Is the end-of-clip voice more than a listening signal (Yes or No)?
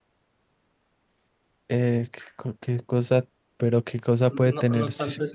Yes